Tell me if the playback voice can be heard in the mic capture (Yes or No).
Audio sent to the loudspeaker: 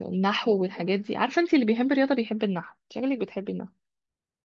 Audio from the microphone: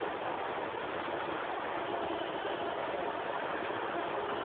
No